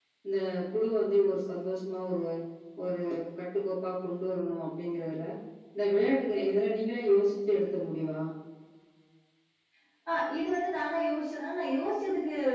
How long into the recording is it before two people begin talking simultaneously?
none

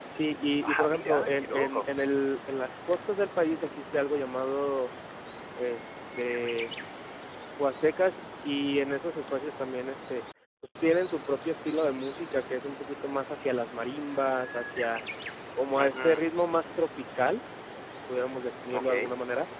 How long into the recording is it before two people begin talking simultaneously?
0.6 s

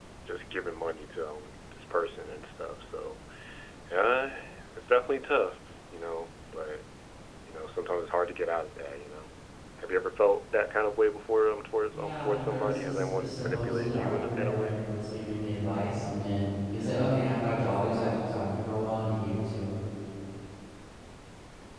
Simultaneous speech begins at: 11.9 s

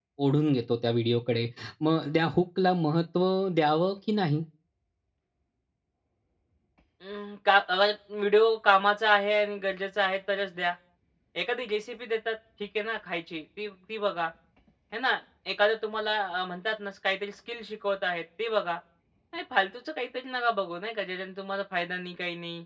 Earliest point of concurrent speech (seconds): none

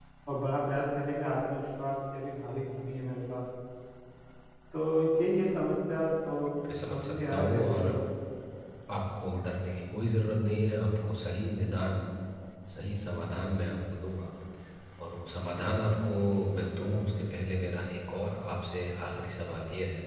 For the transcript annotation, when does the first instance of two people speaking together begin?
6.6 s

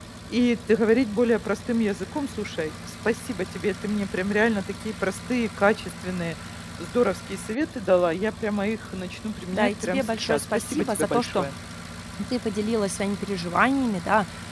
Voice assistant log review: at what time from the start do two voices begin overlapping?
9.5 s

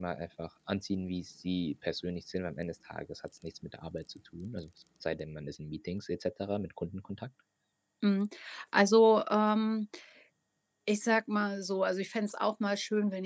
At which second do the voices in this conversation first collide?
none

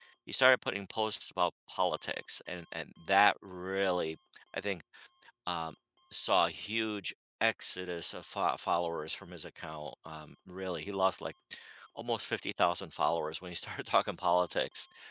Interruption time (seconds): none

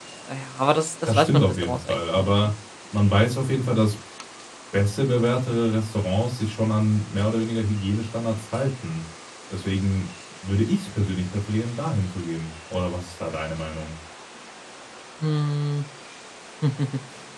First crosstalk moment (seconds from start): 1.1 s

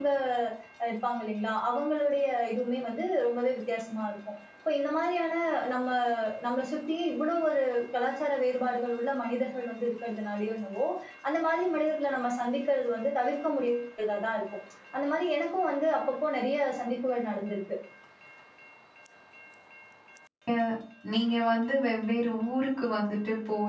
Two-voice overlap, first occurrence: none

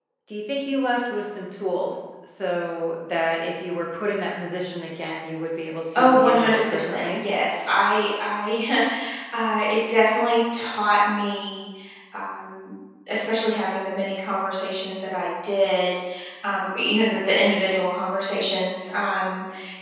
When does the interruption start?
6.0 s

